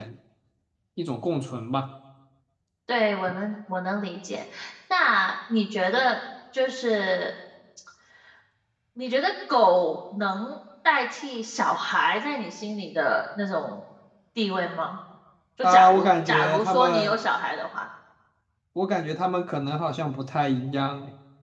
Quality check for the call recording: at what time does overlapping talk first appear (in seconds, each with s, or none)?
15.6 s